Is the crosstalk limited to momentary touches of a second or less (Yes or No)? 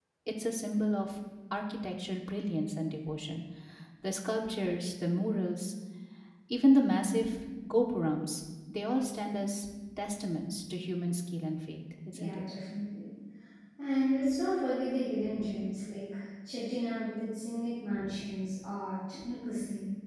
Yes